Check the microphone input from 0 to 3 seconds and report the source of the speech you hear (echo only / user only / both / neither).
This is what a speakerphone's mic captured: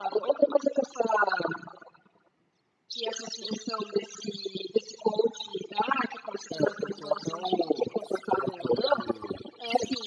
echo only